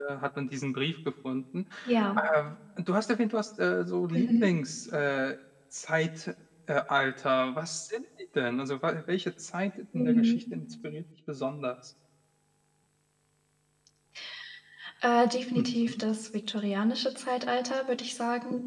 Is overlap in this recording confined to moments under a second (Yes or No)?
Yes